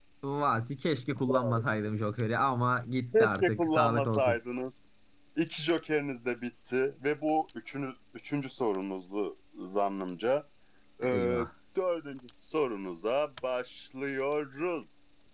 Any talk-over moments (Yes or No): Yes